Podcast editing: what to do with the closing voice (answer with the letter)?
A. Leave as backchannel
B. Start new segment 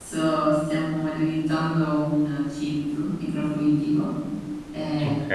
A